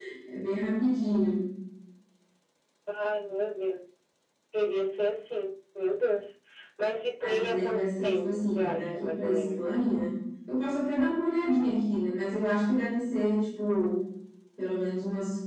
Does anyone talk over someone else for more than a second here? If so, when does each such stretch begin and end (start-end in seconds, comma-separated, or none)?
7.2-9.8